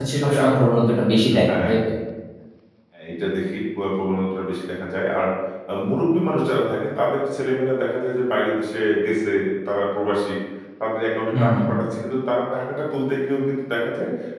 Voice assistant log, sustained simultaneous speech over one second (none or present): none